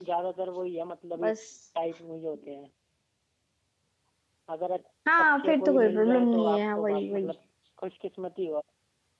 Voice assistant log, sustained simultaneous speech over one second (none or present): present